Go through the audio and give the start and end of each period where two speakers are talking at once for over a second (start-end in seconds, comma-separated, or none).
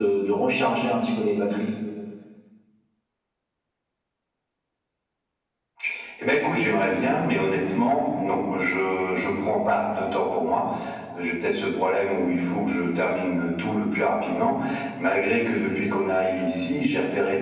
none